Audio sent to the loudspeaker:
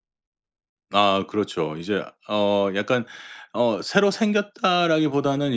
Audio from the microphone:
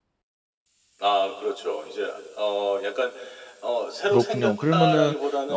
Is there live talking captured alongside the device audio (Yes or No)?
Yes